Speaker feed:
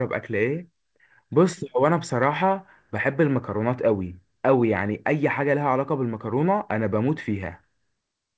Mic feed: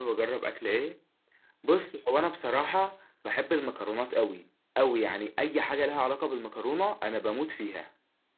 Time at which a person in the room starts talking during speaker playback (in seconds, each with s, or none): none